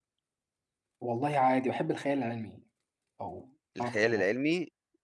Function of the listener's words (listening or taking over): taking over